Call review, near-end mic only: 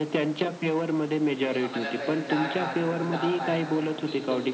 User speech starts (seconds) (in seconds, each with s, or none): 1.3 s